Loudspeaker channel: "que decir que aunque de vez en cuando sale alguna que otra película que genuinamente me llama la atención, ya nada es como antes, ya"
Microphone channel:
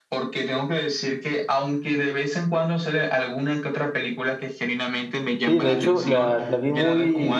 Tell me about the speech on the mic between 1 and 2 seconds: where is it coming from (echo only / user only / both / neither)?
echo only